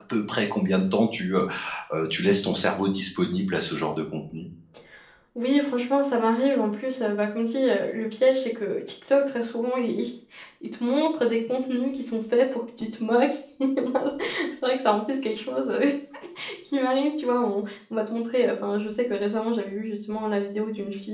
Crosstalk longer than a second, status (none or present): none